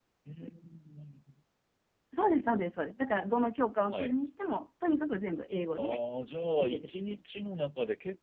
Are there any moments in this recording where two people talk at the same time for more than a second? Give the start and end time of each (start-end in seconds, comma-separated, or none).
none